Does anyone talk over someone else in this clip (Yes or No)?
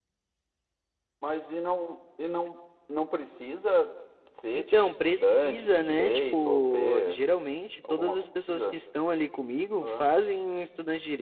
Yes